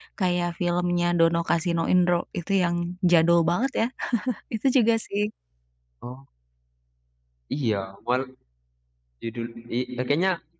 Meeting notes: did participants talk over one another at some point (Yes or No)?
No